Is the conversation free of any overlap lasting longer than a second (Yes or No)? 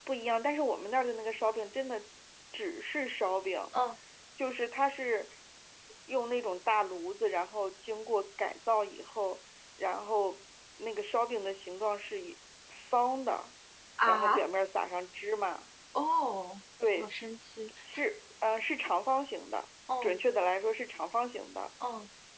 Yes